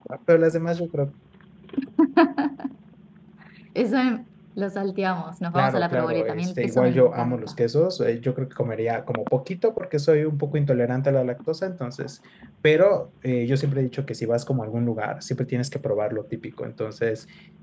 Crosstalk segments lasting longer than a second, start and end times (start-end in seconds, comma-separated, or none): 5.5-7.5